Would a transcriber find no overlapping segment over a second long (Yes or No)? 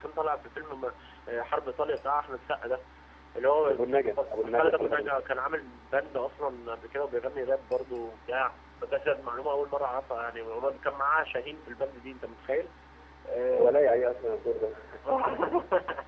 No